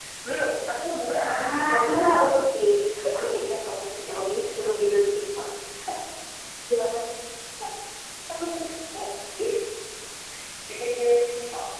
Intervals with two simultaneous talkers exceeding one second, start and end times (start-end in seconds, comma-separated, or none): 1.2-2.6